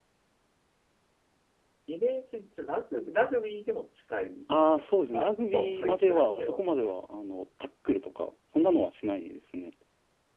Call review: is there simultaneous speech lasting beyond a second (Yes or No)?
Yes